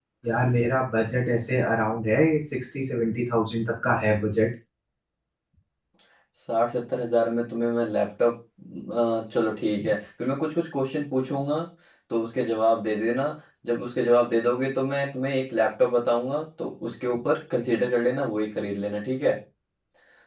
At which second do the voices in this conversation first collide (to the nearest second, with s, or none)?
none